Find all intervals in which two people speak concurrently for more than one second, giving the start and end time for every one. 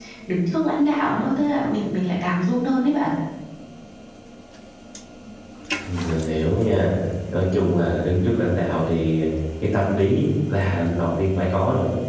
none

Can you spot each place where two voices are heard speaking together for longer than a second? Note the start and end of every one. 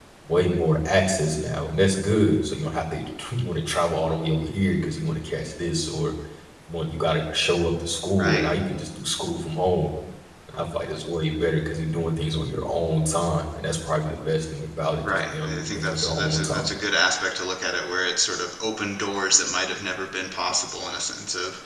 15.0-16.6

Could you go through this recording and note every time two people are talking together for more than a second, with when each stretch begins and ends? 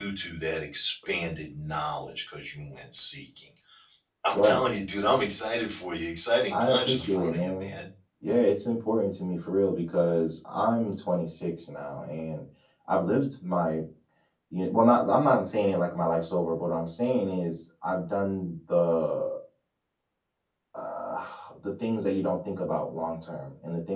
6.5-7.7

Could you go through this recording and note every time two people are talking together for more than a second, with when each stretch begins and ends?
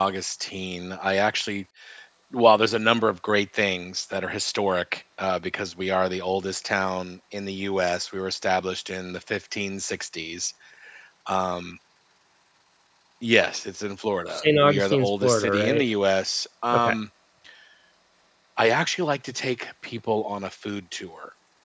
14.3-15.8

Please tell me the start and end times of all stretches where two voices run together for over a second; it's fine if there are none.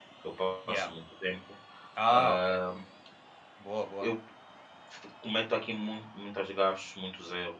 none

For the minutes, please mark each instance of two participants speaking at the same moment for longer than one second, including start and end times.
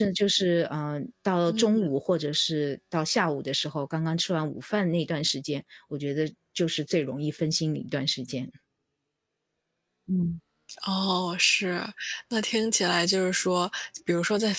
none

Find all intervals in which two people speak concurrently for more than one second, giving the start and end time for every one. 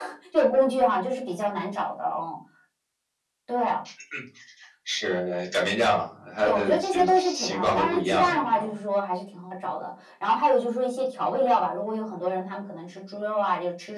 6.4-8.7

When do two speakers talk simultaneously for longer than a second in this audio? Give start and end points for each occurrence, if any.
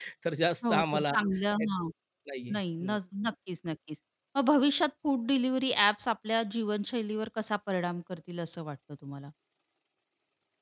none

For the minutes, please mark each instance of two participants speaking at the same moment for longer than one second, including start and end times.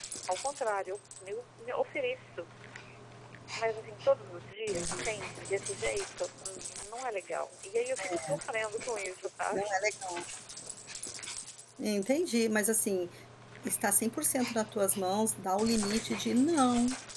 none

